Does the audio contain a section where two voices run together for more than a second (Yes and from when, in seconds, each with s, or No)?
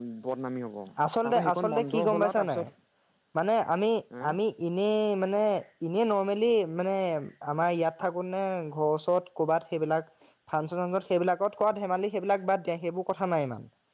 Yes, from 1.2 s